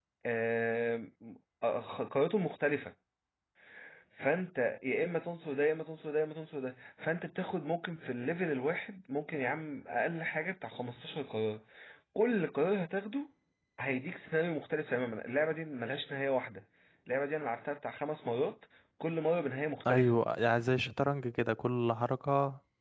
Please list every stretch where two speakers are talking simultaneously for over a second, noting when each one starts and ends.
none

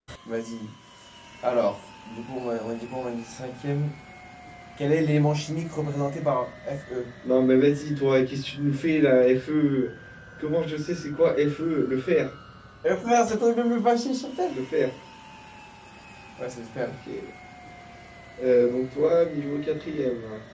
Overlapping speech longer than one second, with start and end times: none

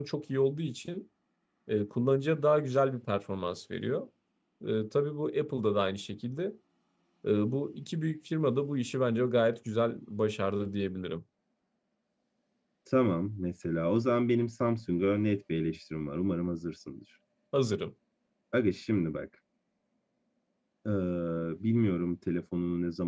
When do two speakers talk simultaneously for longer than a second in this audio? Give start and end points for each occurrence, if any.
none

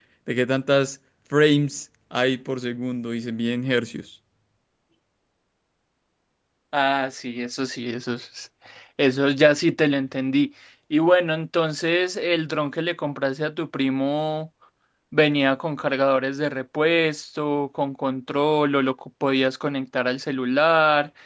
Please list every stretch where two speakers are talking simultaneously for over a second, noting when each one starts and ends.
none

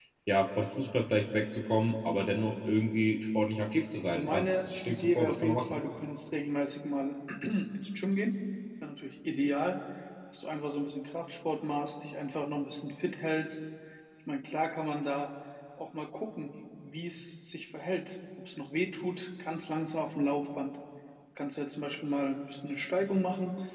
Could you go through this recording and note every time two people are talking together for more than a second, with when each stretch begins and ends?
4.1-5.8

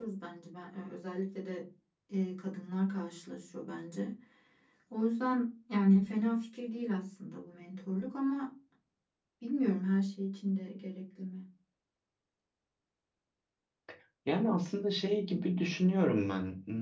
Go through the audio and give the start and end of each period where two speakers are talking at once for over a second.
none

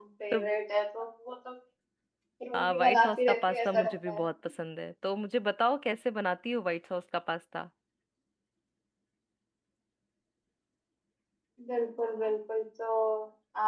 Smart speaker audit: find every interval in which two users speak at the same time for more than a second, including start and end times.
2.8-4.2

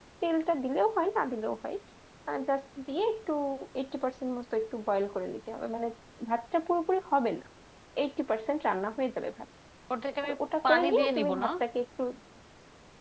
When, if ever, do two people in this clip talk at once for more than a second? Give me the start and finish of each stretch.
10.3-11.5

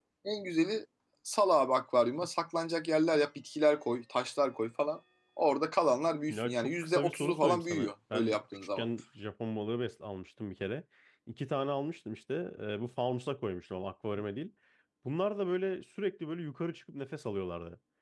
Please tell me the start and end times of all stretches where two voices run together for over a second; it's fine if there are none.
6.3-8.8

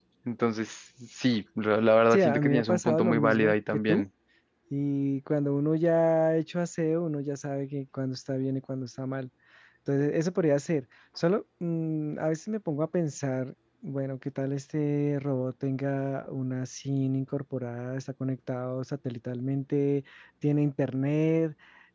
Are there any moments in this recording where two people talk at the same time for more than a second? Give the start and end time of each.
2.1-4.0

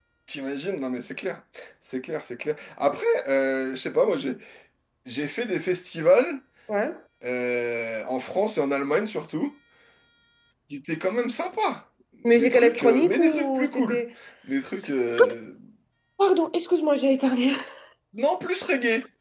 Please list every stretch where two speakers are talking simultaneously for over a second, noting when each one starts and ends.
12.2-14.0

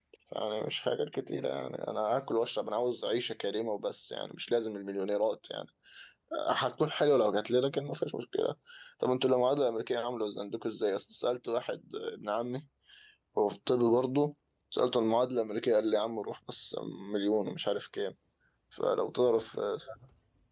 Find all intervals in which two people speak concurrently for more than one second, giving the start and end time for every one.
none

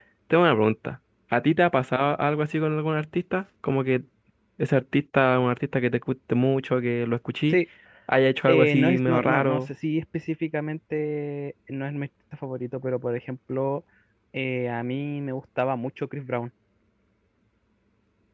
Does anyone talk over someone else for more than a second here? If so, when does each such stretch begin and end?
8.5-9.7

